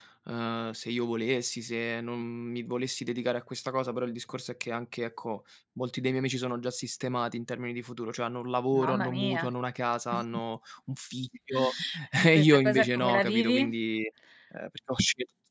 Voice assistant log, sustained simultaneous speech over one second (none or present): present